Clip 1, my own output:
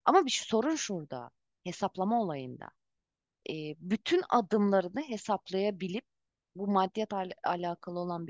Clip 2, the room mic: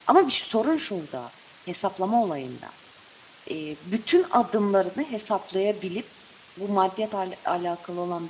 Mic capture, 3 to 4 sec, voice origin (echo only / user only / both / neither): echo only